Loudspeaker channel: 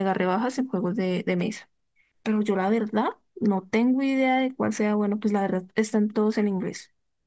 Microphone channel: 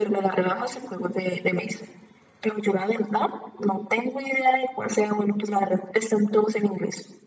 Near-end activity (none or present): none